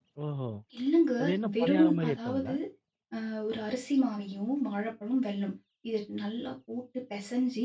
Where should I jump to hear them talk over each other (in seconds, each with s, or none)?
1.2 s